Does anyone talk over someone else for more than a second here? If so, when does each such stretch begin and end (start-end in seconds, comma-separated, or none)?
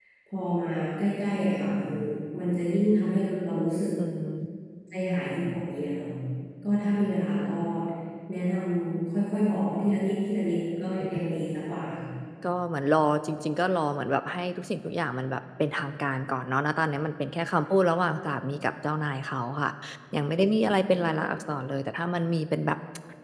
none